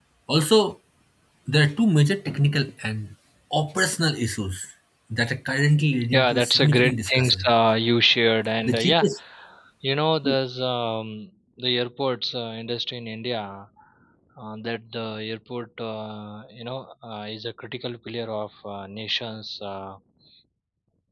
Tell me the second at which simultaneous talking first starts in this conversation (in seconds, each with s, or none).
6.1 s